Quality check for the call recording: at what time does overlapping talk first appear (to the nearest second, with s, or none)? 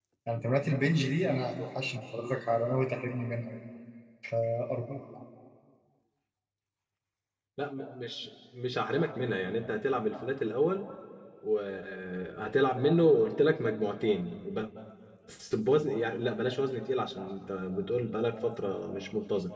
none